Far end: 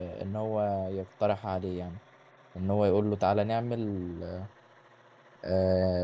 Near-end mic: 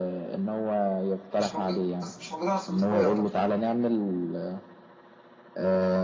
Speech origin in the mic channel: both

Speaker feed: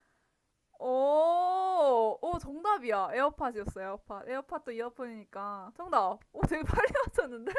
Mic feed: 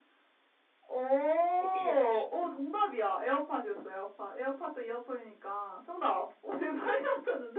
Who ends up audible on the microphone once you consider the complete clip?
both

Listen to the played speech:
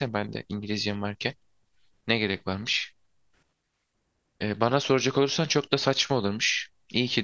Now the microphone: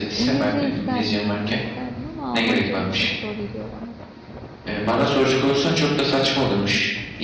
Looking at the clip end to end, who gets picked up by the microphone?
both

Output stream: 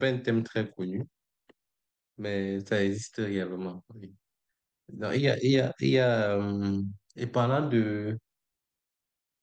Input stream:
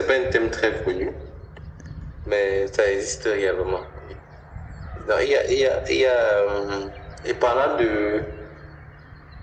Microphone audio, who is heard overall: echo only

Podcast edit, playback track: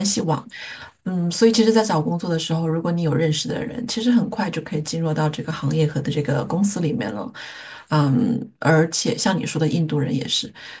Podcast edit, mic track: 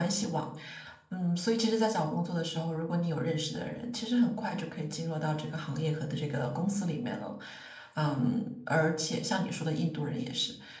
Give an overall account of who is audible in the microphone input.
echo only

